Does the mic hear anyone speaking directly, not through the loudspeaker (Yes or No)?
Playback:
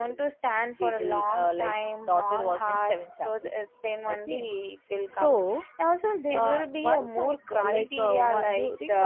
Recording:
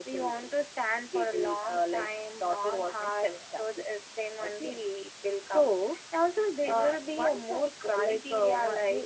No